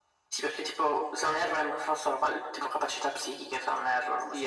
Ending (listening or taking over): taking over